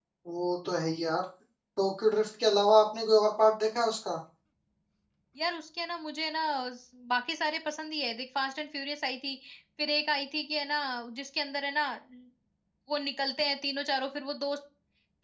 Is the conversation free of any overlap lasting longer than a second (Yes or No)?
Yes